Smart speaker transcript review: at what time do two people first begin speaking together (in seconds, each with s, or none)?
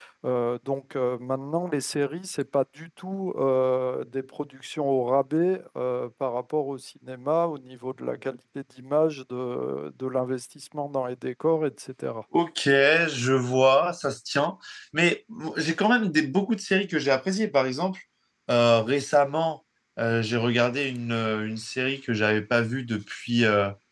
none